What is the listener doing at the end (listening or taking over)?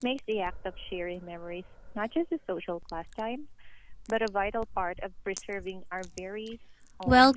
taking over